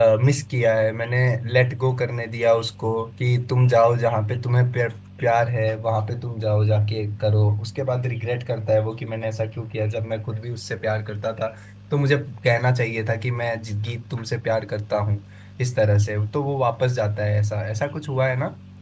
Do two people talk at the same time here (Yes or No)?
No